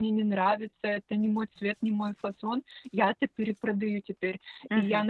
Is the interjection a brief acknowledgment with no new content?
Yes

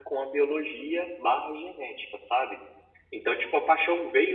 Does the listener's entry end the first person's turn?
No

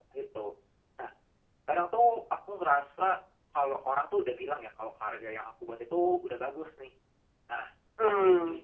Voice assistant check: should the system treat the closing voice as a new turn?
No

